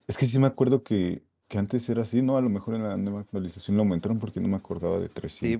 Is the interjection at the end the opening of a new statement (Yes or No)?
Yes